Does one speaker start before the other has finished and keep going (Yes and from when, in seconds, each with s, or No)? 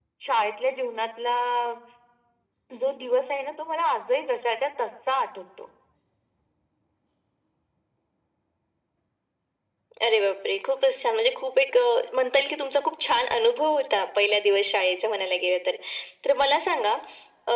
No